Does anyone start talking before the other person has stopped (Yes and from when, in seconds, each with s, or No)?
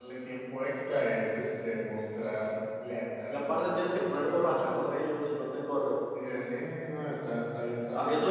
Yes, from 3.3 s